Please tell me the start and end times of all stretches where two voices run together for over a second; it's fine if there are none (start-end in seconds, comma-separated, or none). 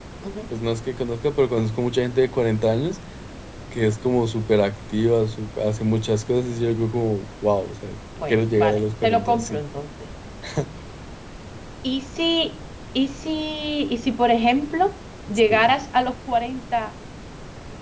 8.3-9.6